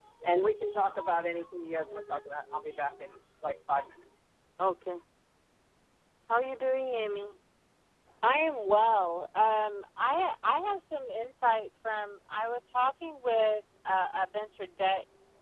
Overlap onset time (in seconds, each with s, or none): none